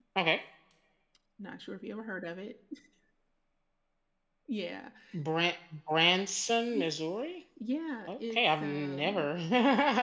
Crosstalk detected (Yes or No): Yes